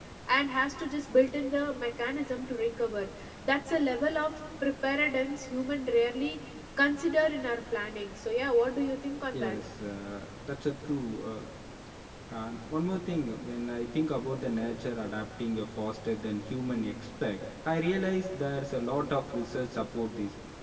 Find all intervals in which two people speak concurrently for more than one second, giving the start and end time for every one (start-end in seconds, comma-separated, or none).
none